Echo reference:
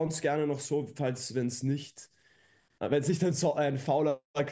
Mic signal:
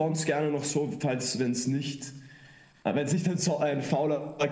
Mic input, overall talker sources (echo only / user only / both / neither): echo only